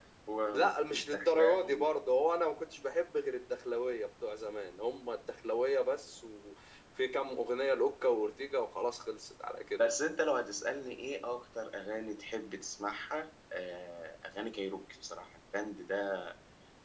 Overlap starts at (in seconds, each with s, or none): 0.5 s